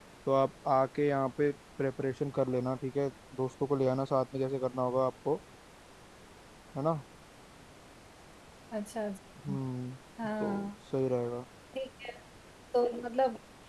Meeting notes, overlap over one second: none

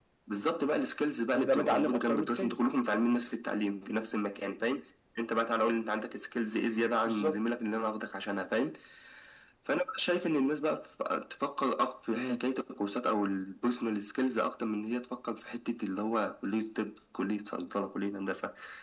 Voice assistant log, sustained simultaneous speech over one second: present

